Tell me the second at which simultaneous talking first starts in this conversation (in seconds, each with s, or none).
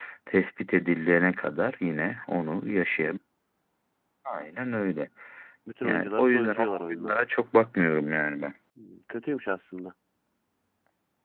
5.8 s